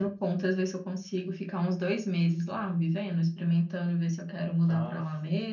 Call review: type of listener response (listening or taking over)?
taking over